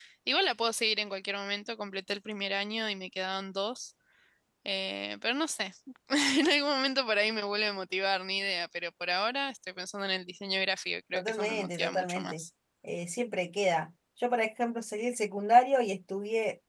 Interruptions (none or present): present